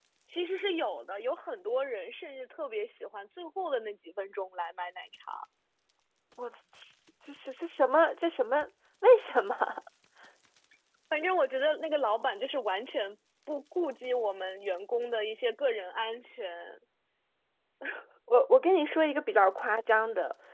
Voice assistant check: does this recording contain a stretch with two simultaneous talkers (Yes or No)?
No